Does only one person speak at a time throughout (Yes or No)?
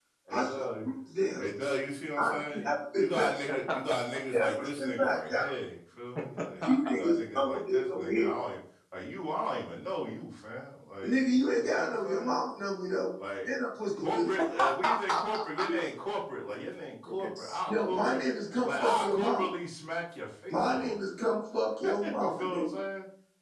No